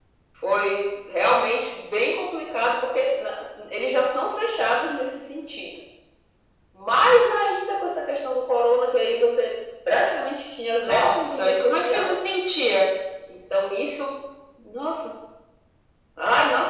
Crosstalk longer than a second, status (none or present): present